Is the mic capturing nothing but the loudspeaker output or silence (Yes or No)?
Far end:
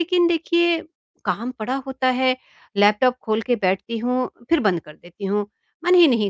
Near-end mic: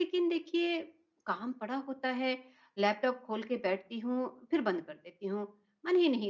Yes